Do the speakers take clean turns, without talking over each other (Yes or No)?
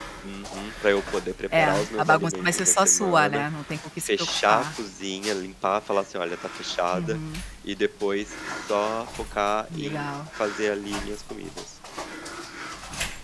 No